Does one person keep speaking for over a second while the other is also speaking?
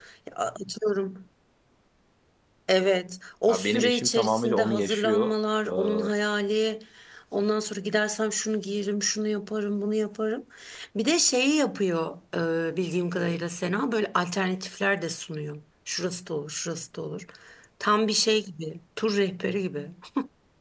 Yes, from 3.5 s

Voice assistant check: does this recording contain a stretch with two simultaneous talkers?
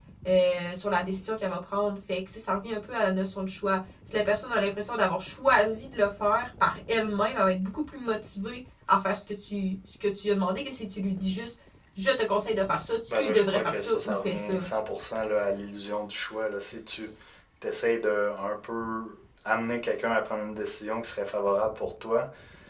Yes, from 13.1 s

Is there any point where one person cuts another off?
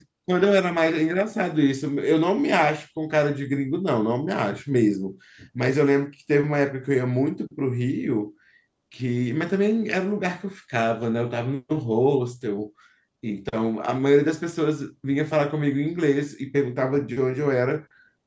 No

